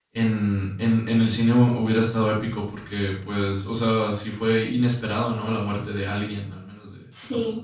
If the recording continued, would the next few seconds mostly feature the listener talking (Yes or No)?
Yes